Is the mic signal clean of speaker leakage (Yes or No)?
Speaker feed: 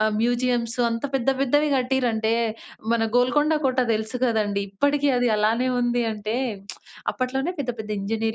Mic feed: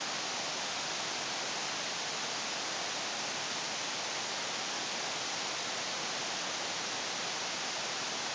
Yes